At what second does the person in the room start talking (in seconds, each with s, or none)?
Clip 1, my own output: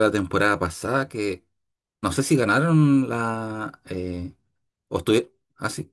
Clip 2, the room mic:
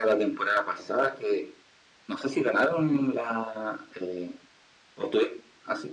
none